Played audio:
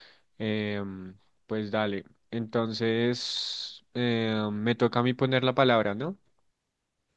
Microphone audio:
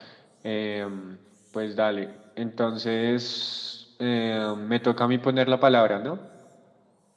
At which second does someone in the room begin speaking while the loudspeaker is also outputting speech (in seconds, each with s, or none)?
none